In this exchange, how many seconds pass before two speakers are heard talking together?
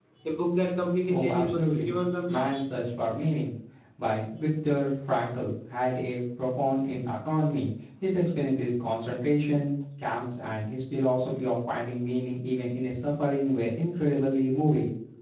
1 s

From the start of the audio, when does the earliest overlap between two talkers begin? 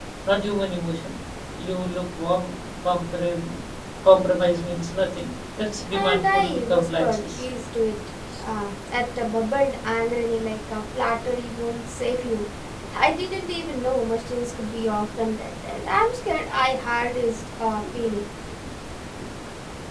6 s

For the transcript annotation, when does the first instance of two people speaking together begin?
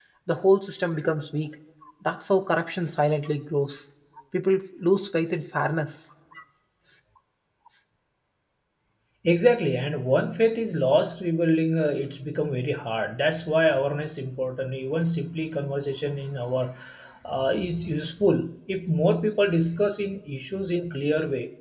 none

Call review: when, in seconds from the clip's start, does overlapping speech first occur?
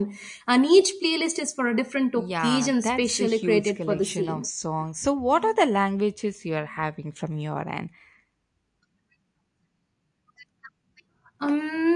2 s

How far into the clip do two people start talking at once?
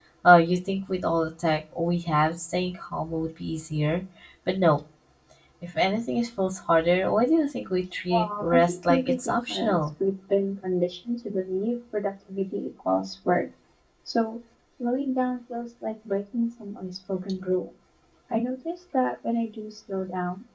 8 s

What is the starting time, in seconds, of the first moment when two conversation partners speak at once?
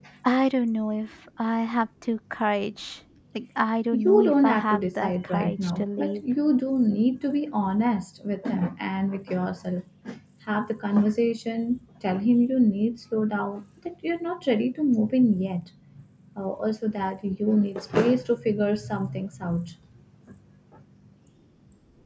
4 s

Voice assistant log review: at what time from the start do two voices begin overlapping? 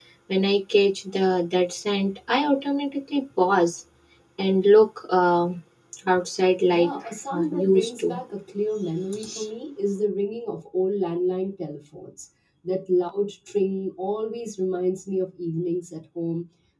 7 s

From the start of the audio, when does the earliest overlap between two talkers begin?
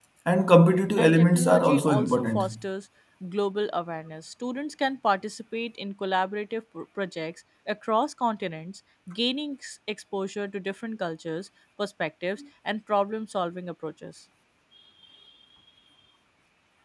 1 s

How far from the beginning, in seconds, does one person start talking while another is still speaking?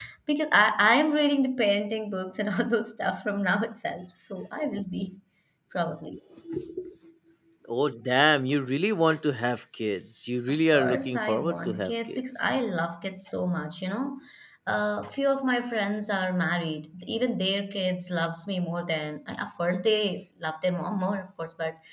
10 s

